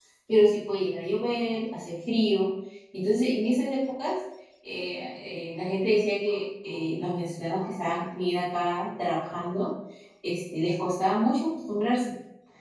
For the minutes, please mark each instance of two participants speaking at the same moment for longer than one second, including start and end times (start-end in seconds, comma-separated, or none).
none